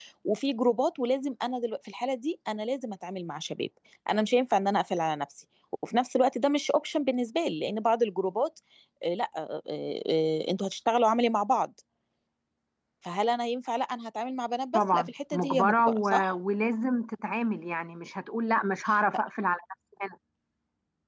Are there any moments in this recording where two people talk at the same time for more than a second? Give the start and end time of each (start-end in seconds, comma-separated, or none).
14.7-16.3